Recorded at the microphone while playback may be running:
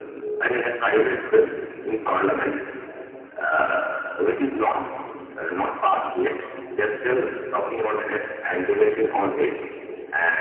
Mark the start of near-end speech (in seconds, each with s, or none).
none